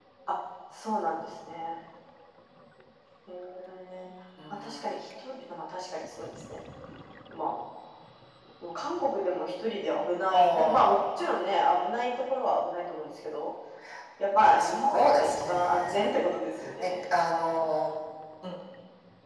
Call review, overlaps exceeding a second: present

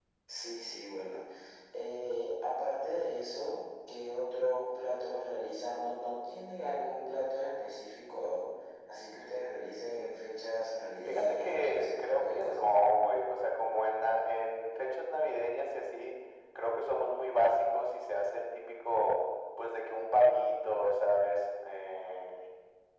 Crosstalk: present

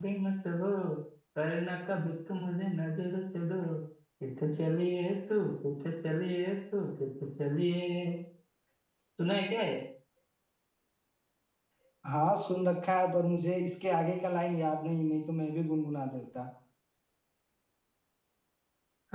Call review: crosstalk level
none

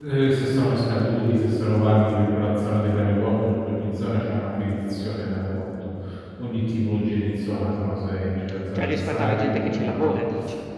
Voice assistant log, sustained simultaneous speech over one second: present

